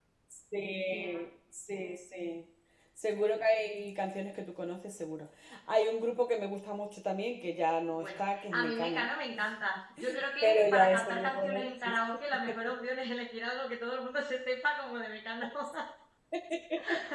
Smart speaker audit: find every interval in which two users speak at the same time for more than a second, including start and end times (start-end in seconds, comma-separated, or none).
7.9-9.1, 10.4-12.0